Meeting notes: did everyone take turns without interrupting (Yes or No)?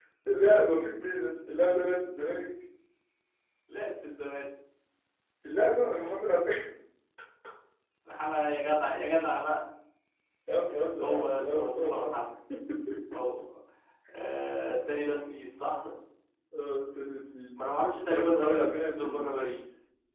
No